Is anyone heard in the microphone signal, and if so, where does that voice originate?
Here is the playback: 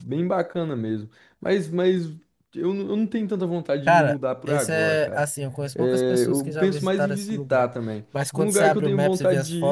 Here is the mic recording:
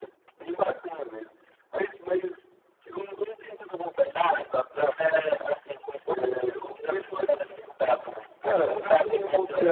both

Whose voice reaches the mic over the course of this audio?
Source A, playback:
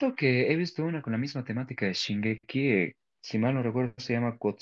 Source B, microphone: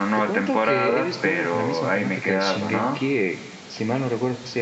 both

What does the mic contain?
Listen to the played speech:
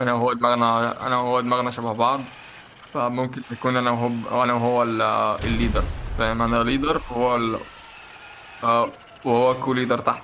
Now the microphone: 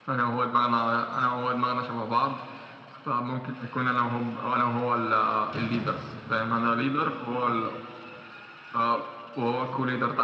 echo only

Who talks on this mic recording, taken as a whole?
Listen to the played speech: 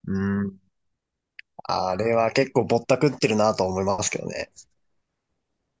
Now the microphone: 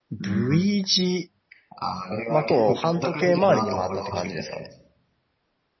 both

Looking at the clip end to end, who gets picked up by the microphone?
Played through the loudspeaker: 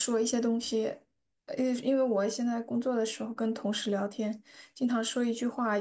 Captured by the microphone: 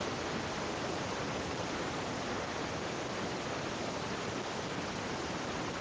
neither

